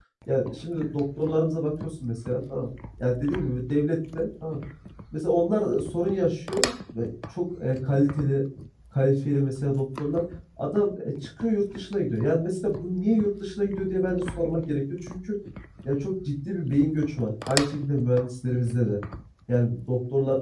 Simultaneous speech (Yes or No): No